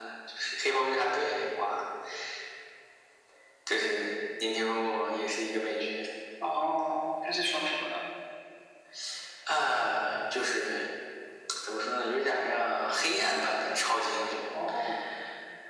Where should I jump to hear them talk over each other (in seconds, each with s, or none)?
none